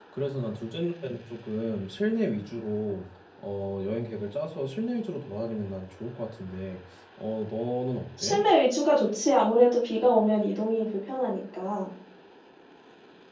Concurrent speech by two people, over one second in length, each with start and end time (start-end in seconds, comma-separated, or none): none